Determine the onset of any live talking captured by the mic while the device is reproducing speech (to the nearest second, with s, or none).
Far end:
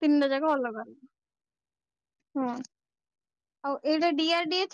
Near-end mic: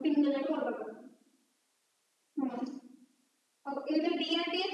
none